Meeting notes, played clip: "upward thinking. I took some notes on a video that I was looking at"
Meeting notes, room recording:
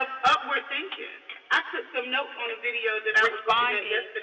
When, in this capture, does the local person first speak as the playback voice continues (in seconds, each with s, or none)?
3.2 s